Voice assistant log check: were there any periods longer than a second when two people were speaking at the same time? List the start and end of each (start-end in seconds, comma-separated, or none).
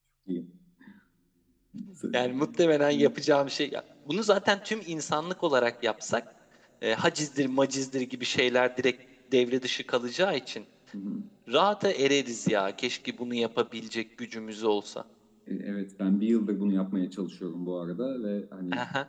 none